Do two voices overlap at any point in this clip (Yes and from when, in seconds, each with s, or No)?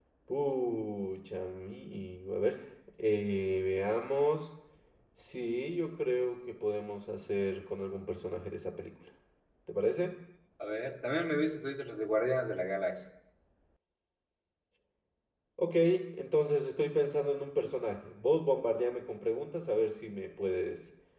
No